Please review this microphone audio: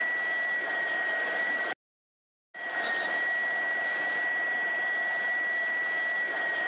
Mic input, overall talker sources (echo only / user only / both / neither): neither